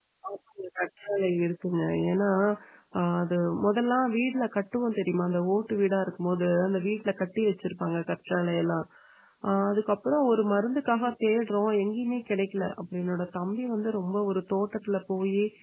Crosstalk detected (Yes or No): No